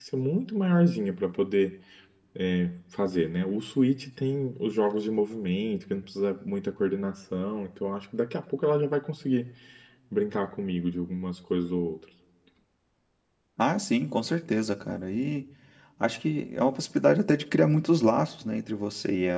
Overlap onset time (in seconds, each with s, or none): none